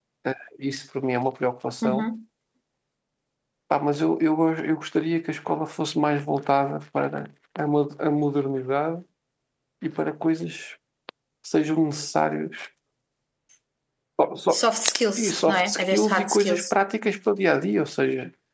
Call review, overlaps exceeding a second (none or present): present